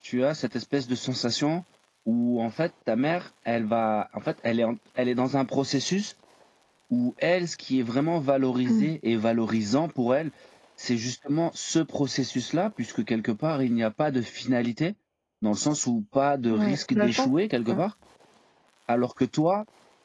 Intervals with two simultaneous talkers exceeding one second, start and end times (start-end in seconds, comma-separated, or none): 16.5-17.8